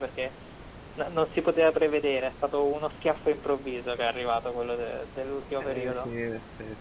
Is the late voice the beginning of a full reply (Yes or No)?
Yes